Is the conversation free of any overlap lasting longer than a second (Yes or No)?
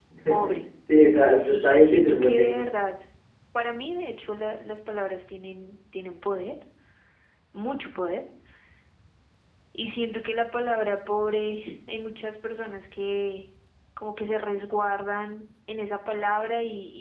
No